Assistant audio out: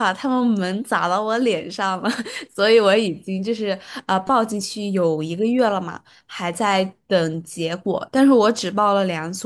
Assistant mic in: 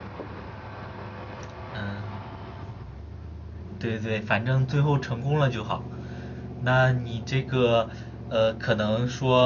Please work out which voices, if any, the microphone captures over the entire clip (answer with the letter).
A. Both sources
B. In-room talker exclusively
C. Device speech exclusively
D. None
B